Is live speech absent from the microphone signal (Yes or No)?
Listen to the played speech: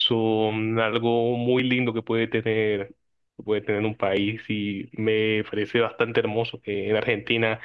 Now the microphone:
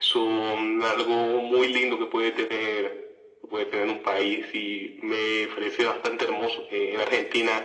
Yes